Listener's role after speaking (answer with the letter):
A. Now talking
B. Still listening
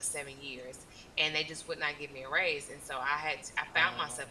B